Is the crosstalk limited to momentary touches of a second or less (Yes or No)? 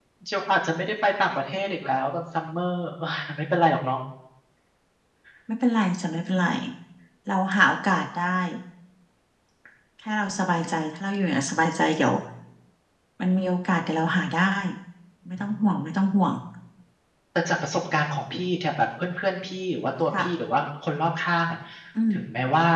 Yes